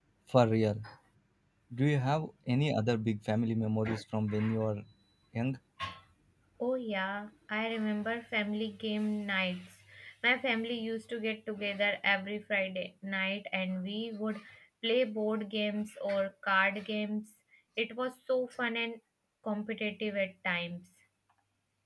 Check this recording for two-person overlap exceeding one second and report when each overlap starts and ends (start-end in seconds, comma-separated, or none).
none